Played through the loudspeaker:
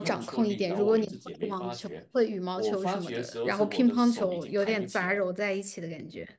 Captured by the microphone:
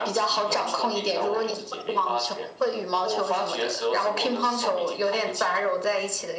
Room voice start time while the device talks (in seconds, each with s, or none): none